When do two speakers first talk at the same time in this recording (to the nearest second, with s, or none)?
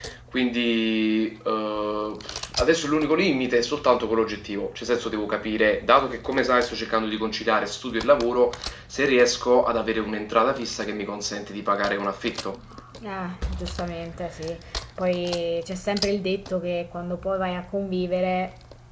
none